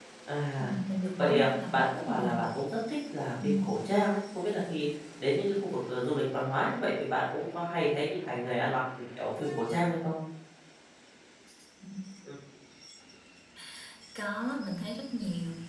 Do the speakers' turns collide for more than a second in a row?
Yes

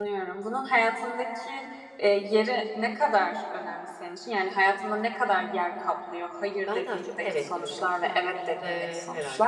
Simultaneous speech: Yes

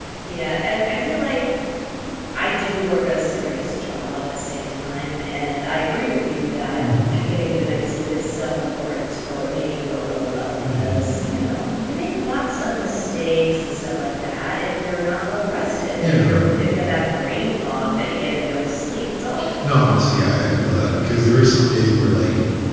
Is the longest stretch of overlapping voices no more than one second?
Yes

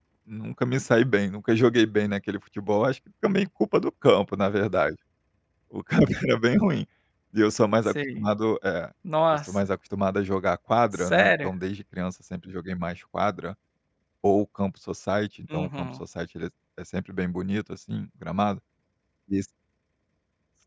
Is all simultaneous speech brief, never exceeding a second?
Yes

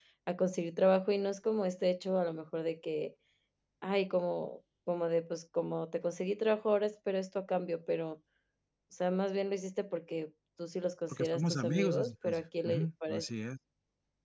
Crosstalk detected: Yes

